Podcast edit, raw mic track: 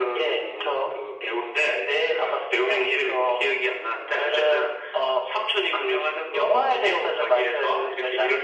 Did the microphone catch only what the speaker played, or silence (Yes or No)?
Yes